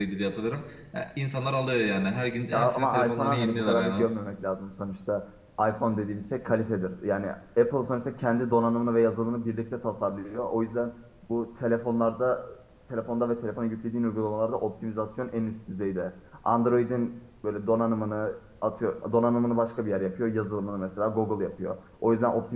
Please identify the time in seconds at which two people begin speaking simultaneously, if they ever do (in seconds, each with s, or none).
2.5 s